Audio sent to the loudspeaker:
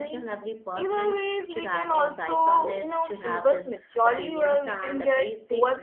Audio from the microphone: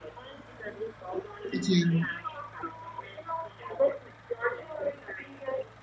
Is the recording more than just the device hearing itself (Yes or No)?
Yes